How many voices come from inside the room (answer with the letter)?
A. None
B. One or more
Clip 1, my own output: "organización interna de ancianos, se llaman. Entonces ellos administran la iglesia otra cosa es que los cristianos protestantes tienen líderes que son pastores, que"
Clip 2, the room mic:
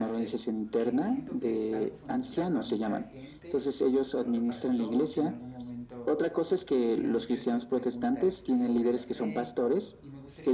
B